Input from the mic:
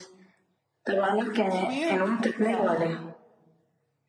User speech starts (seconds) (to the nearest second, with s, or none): 1 s